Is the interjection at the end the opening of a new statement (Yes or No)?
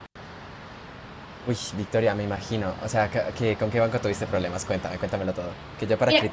No